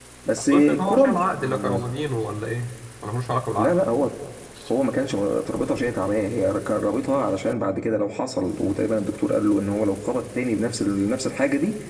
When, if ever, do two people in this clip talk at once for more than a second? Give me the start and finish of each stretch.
0.5-1.8

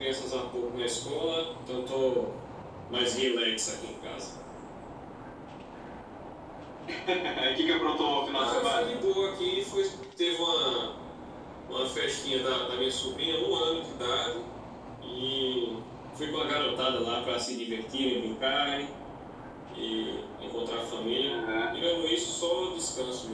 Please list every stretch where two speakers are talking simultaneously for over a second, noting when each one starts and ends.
none

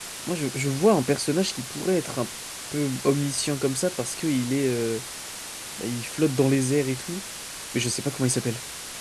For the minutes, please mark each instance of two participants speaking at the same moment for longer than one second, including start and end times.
none

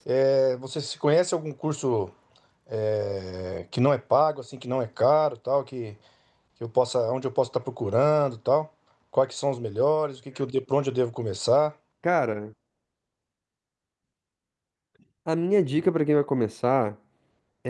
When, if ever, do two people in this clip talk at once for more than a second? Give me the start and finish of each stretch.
none

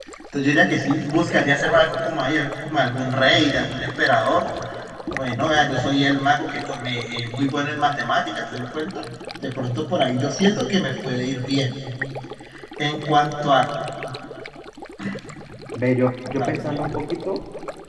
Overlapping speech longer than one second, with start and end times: none

